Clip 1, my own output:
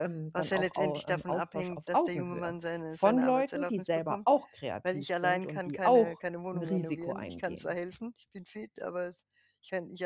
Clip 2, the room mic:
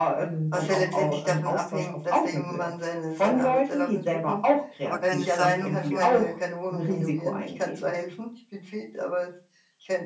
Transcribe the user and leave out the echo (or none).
aber keine Sammlung von